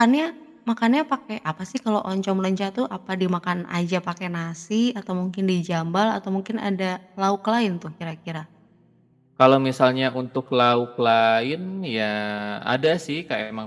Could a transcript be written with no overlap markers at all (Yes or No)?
Yes